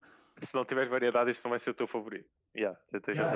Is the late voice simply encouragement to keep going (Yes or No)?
No